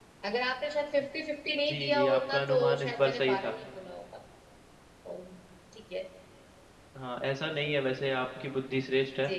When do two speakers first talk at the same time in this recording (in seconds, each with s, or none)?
1.7 s